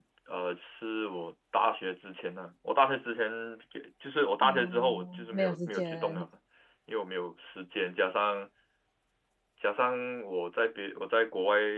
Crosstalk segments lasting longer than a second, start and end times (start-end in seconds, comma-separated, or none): 4.4-6.2